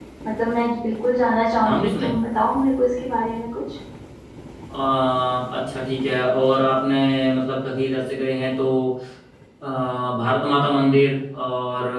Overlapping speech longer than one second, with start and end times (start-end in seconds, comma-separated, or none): none